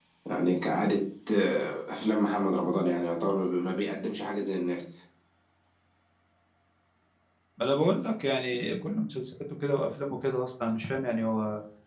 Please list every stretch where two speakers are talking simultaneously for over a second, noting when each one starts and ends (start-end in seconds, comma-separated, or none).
none